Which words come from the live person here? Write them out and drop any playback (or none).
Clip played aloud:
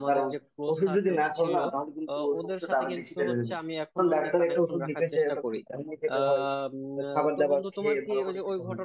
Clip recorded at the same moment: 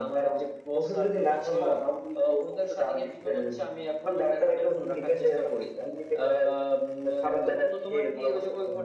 none